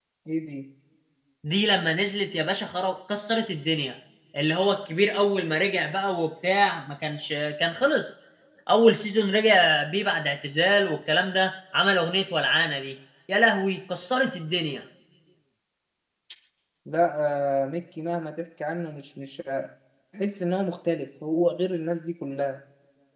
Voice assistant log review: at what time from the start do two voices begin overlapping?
none

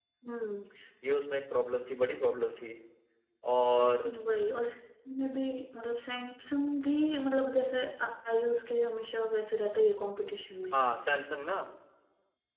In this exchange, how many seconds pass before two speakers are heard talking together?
none

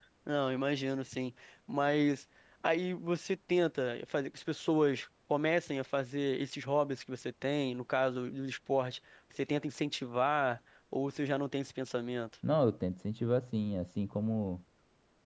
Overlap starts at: none

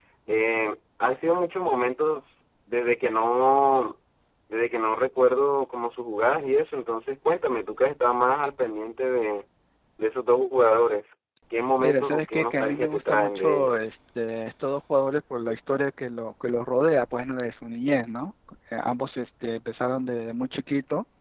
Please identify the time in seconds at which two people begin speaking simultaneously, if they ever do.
11.8 s

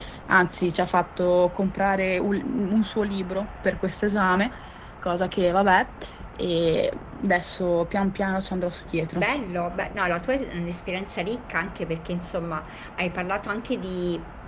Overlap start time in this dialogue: none

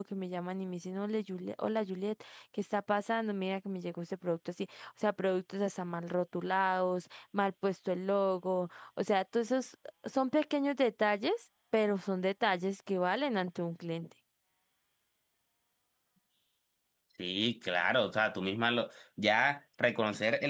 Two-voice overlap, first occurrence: none

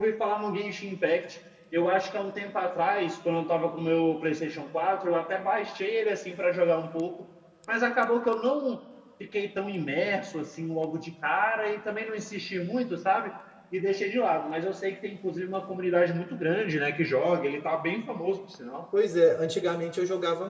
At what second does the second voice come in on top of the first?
none

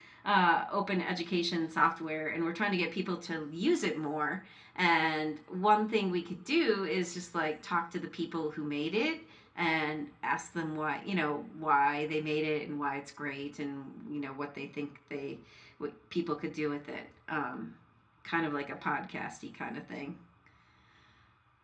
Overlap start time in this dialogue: none

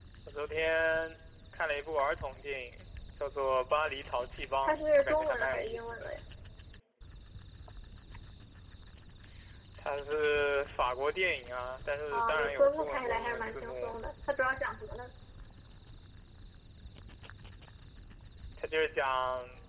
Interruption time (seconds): 4.6 s

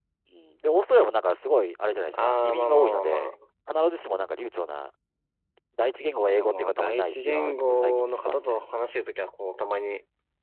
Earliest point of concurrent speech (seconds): 2.1 s

